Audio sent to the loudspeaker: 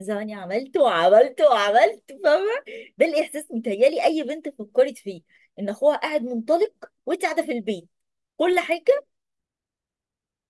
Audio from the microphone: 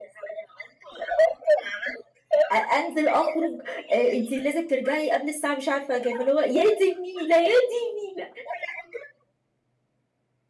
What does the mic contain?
both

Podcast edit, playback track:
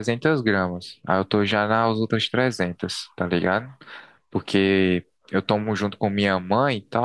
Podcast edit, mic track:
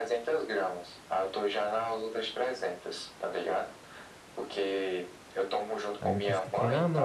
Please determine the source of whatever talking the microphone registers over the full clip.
both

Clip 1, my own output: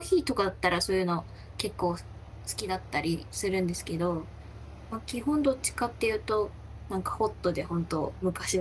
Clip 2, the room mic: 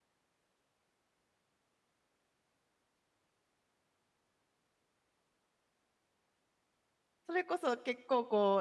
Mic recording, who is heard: user only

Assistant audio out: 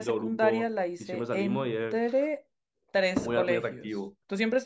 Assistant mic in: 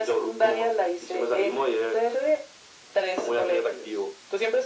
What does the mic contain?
echo only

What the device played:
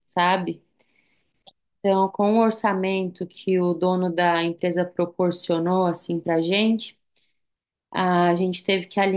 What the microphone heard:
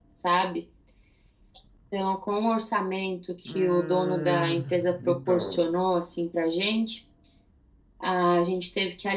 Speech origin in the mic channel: both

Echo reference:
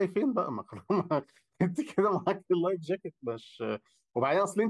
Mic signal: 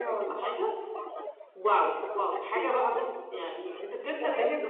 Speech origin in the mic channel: both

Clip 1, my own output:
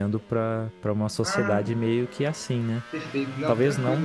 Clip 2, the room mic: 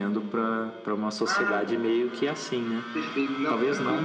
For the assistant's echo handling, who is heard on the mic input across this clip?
echo only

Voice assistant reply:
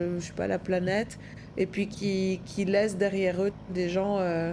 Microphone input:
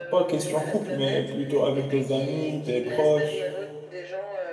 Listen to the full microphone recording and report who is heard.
both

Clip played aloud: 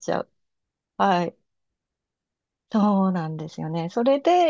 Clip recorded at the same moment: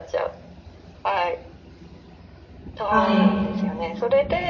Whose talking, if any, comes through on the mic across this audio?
both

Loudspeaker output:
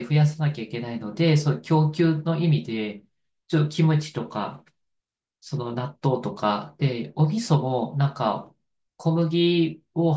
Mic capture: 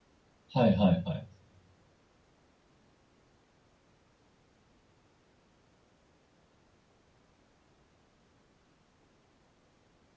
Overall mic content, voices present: user only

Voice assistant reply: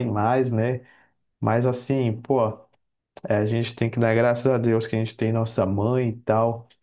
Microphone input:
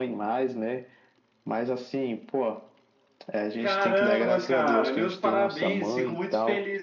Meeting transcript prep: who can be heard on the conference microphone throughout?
both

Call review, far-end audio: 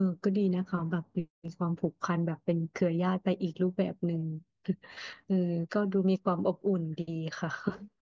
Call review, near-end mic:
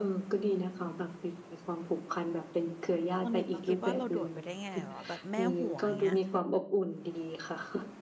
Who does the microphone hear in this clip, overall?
both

